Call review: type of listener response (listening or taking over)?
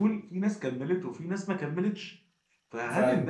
listening